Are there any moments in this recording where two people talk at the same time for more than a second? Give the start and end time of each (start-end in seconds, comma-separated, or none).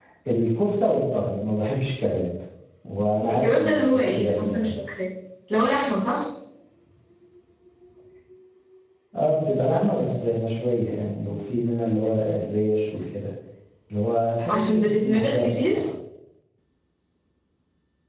3.3-4.7, 14.5-15.8